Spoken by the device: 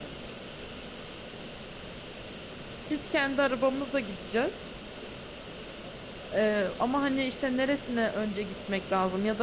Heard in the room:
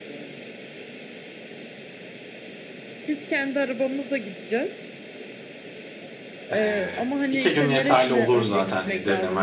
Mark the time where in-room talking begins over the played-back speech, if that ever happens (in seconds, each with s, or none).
6.5 s